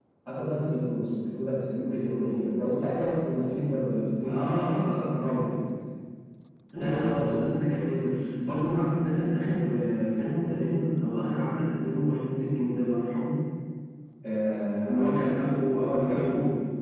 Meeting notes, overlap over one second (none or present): present